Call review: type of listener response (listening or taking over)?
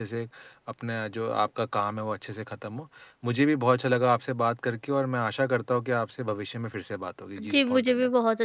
taking over